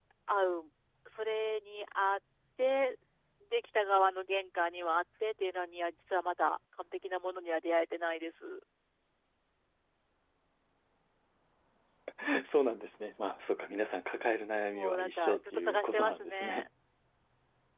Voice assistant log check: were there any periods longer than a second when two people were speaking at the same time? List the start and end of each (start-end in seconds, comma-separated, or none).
14.7-16.7